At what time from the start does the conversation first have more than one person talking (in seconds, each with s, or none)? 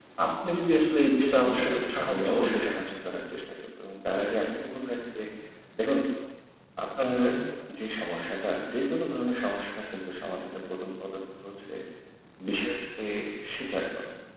1.4 s